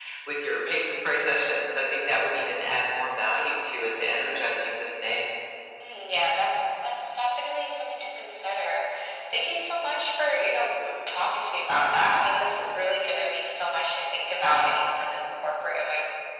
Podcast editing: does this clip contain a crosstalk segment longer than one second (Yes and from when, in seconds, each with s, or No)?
No